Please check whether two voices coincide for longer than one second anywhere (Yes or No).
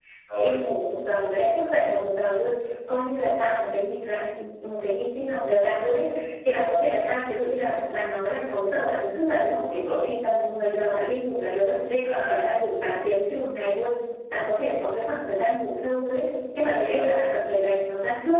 No